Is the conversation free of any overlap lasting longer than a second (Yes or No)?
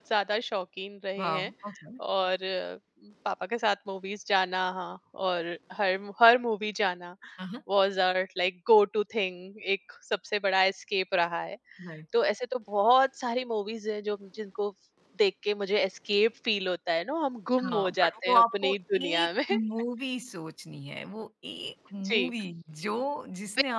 No